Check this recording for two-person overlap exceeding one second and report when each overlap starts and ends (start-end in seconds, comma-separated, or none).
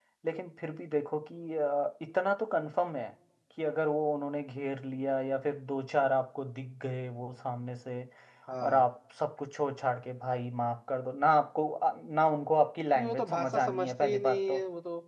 12.9-14.6